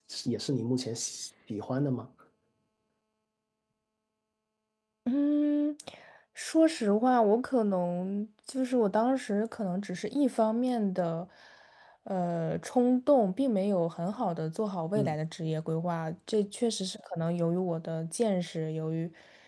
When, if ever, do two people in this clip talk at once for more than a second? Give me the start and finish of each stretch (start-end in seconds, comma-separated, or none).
none